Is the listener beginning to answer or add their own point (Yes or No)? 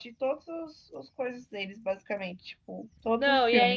Yes